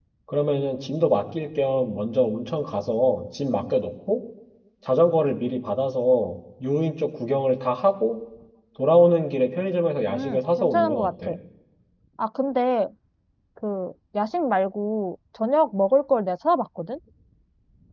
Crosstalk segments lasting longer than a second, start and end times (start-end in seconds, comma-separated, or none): 10.1-11.3